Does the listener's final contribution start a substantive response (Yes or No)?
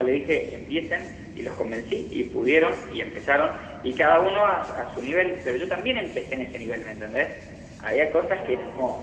No